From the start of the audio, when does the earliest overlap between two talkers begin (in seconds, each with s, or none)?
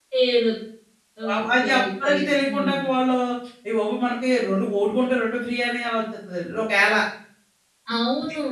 1.3 s